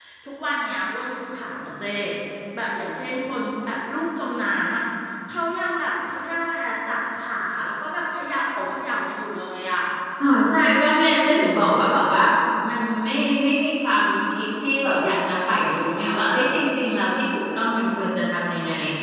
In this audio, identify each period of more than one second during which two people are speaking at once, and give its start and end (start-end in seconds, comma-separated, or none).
none